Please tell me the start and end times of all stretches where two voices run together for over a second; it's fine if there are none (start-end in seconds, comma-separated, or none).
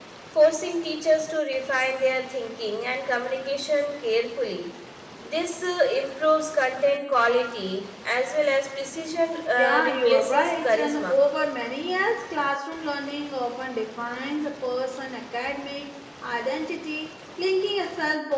9.5-11.2